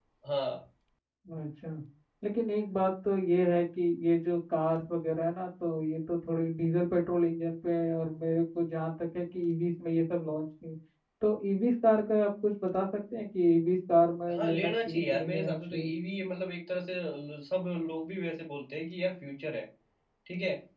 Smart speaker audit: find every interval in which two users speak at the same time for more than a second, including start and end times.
14.3-15.9

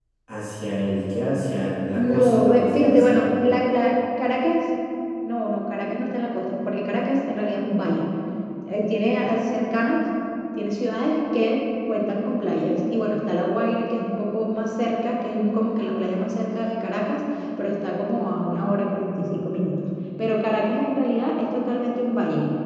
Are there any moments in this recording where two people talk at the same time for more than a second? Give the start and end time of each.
2.0-3.2

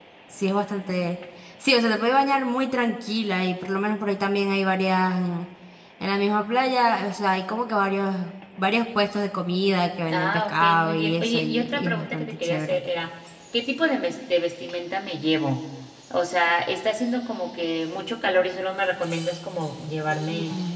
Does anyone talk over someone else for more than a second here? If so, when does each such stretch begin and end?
10.1-12.8

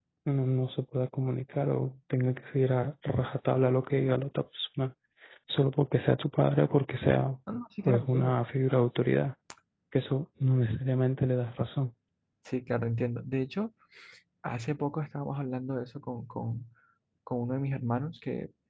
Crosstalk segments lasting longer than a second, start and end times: none

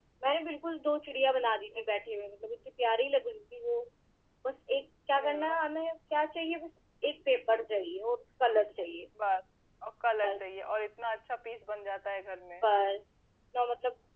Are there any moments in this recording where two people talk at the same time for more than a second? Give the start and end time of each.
none

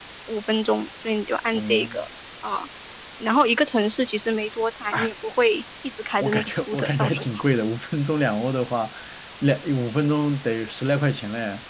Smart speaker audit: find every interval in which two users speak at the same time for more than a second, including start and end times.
6.2-7.4

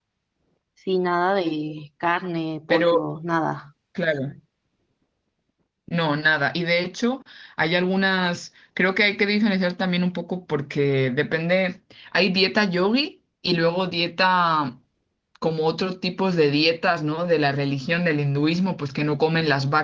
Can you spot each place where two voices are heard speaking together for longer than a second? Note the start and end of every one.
none

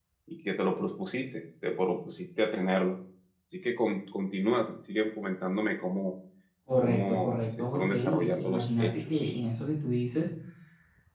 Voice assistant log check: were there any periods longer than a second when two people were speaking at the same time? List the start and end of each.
6.8-9.3

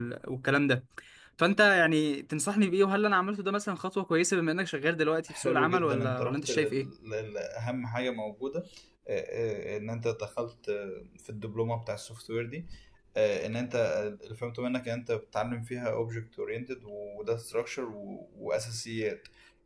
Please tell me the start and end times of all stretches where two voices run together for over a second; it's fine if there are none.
5.3-6.9

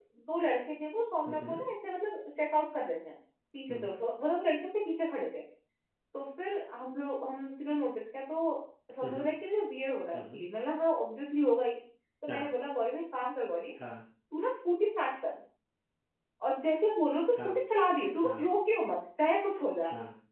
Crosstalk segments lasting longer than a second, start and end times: none

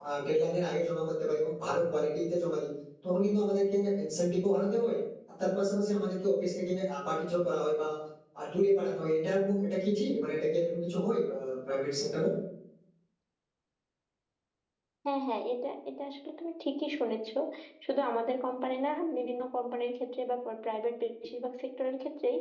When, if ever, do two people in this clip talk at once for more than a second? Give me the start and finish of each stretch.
none

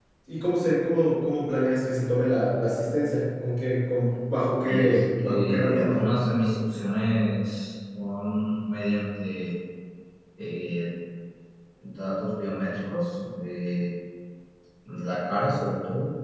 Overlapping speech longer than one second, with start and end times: 4.7-6.0

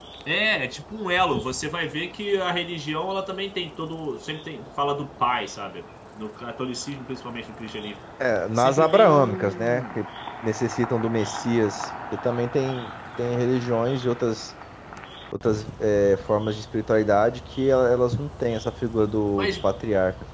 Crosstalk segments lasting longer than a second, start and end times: 8.6-9.8

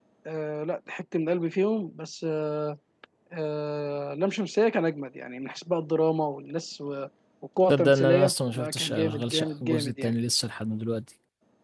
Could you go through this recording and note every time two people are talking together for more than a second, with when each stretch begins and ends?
7.7-10.1

